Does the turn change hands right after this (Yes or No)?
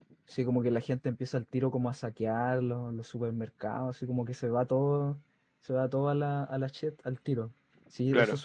No